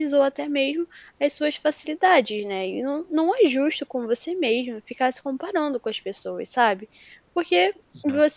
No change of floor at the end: Yes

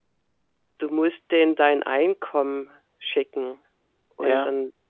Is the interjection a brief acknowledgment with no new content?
Yes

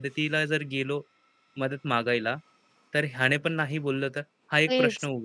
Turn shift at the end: Yes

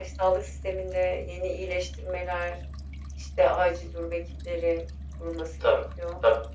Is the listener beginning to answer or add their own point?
Yes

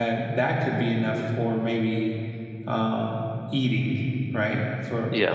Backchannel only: Yes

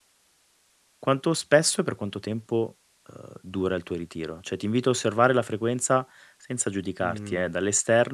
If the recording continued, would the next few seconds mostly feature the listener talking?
No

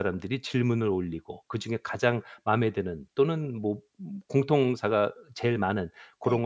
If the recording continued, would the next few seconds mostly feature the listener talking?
No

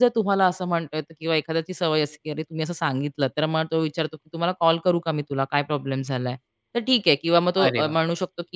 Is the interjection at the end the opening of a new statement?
No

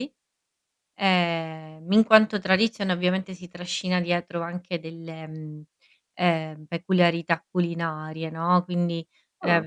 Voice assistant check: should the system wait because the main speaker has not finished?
Yes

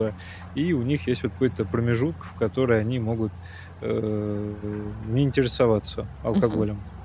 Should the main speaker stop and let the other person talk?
Yes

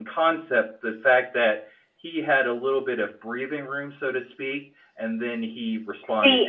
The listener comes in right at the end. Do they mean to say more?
Yes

